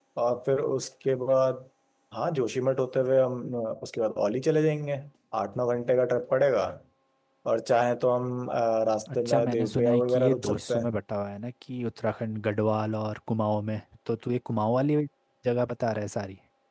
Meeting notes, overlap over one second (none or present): present